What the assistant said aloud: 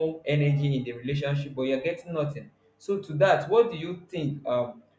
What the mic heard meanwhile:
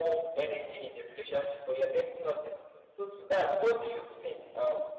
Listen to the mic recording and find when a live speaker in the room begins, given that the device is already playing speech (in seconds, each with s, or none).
none